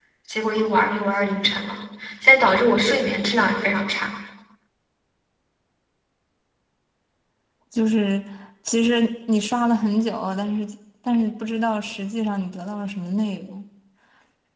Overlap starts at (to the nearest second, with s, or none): none